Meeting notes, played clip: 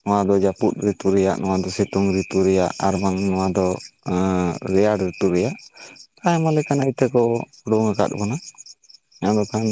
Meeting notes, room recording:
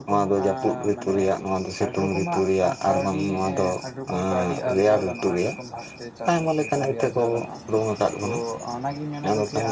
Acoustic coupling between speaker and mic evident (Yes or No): Yes